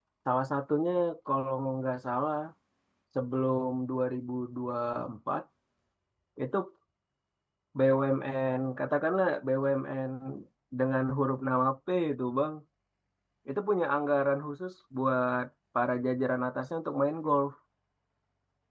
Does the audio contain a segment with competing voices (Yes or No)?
No